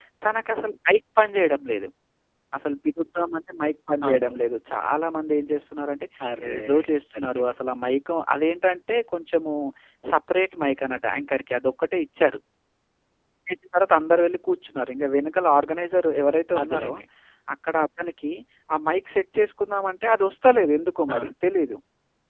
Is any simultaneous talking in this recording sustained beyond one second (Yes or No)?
No